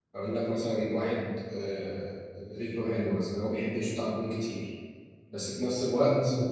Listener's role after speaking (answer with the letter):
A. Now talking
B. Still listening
B